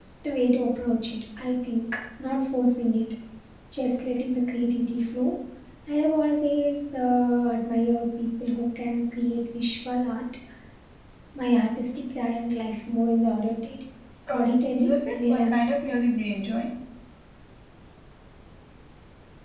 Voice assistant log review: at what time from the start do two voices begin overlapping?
14.3 s

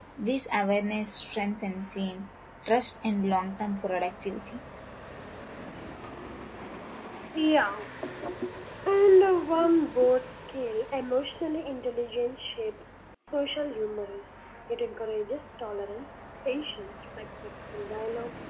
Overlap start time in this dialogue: none

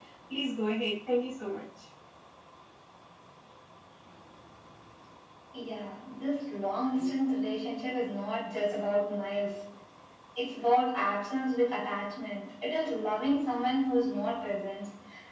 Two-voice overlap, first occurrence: none

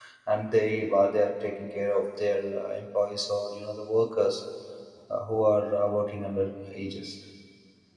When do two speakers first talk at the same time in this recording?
none

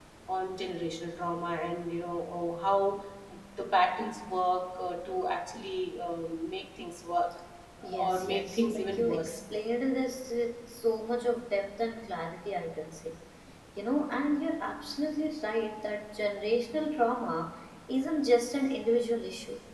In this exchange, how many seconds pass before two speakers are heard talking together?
7.8 s

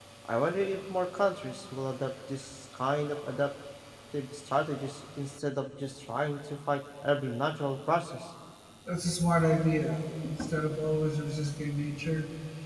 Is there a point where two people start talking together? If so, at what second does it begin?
none

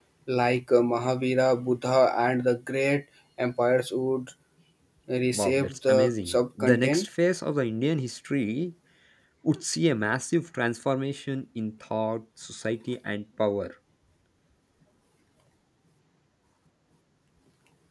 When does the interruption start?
5.3 s

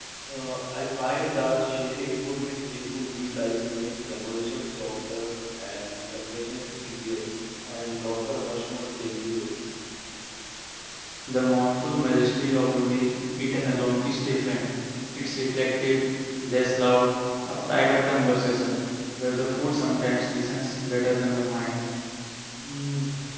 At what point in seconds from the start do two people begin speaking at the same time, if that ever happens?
none

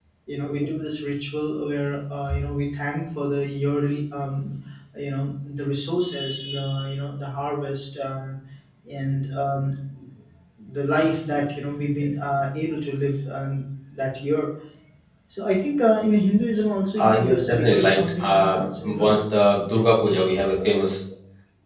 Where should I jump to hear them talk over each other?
17.0 s

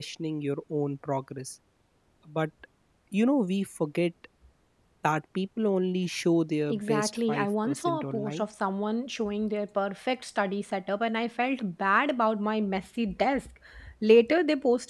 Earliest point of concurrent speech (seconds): 6.7 s

